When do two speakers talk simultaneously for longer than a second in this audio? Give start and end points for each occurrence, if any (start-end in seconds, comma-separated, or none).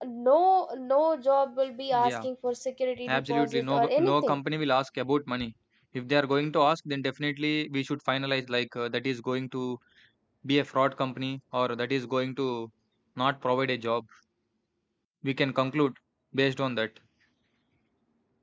3.1-4.3